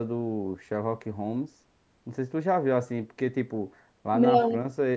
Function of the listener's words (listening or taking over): listening